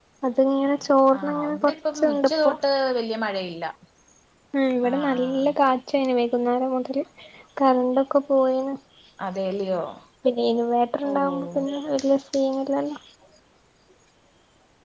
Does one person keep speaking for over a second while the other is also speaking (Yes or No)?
Yes